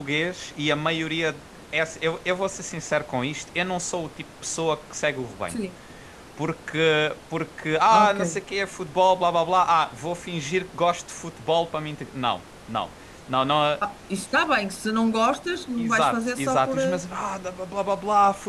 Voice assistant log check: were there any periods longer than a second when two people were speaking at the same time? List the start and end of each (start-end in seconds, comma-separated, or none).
15.8-17.0